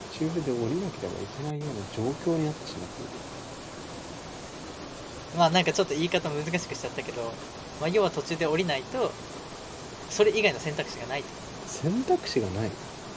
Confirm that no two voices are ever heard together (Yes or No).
Yes